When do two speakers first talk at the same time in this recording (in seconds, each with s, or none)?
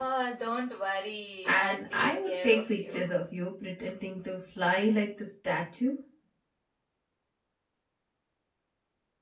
1.5 s